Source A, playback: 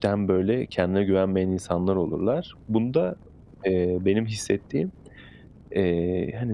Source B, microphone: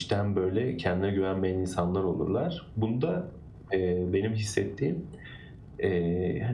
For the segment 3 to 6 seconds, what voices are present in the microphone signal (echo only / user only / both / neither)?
echo only